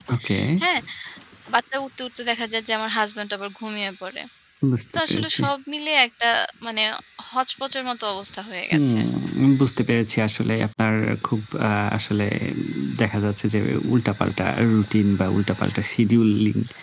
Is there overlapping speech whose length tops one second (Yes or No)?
No